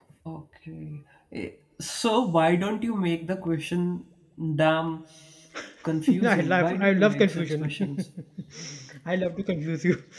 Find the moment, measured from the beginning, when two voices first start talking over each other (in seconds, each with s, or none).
6.2 s